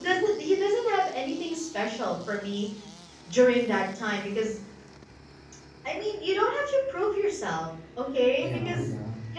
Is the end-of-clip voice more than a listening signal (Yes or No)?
No